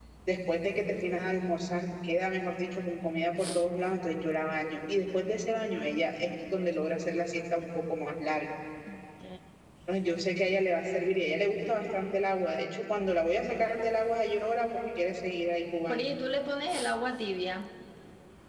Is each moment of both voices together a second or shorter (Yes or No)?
Yes